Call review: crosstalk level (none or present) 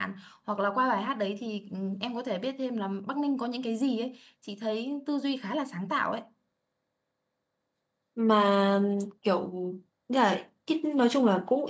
none